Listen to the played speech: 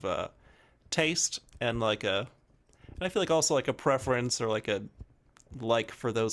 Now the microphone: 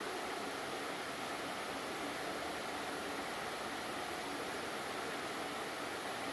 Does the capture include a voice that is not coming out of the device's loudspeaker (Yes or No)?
No